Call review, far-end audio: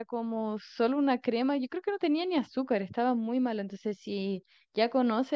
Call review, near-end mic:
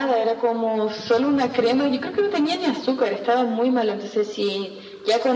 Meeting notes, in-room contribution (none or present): none